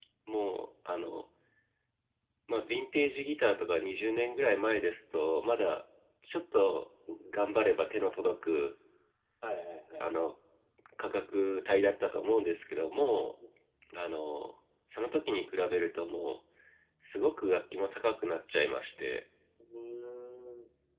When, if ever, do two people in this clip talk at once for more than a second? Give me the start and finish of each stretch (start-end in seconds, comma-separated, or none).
none